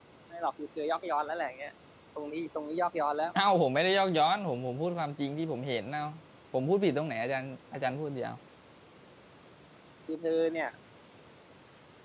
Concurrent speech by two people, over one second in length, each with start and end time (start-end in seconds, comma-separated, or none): none